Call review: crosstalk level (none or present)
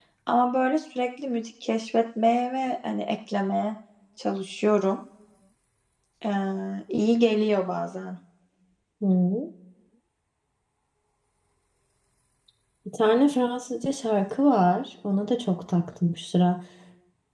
none